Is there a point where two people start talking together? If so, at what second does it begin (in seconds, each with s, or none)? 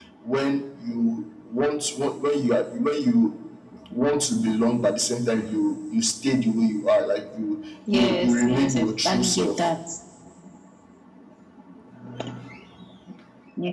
7.9 s